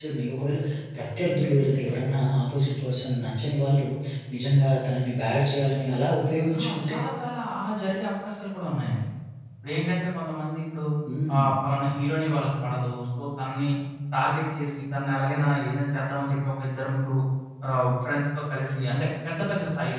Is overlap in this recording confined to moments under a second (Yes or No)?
Yes